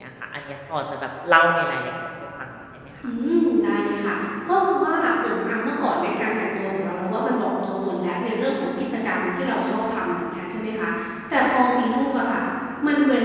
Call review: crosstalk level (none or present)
none